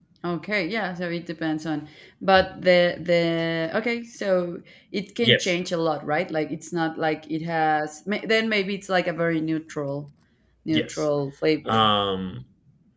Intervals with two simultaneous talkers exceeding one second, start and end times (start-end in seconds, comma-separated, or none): none